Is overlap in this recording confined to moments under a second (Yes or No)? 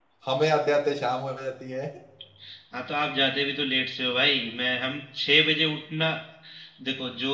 Yes